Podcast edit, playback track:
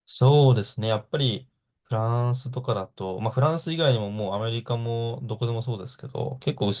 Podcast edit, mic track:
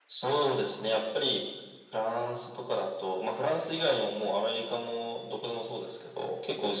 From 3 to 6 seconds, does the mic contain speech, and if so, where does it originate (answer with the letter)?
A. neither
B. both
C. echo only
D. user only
C